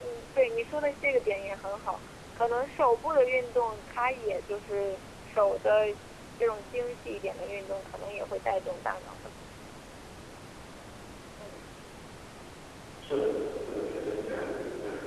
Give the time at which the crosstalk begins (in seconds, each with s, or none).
none